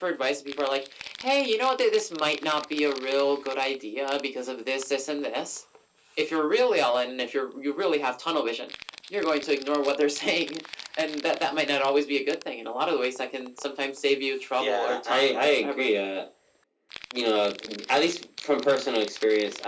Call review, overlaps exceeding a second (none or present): present